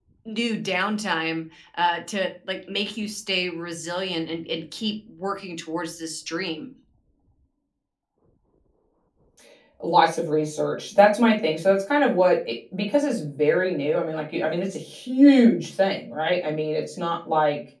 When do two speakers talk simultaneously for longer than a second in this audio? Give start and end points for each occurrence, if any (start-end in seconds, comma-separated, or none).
none